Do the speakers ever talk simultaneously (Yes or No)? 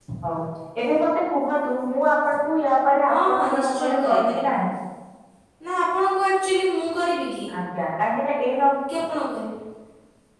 Yes